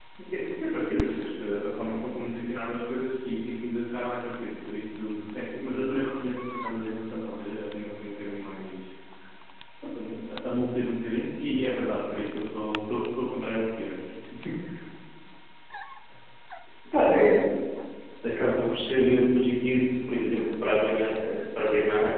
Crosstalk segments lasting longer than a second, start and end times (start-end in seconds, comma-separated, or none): none